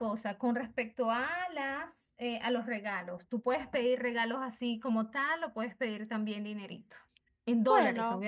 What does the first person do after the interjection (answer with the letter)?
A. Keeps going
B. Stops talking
A